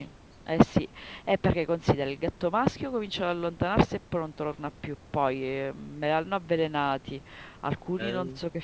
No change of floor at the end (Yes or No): Yes